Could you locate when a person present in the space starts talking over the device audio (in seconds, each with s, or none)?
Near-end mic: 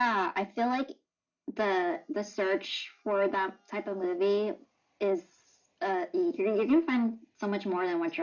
none